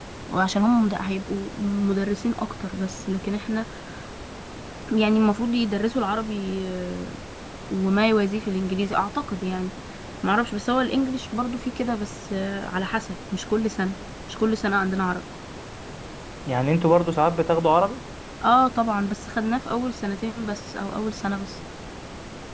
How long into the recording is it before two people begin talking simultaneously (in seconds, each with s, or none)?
none